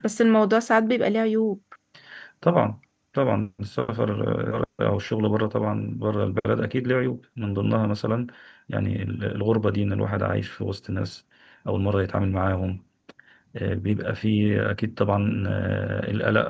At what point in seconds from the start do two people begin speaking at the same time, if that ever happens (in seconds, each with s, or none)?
none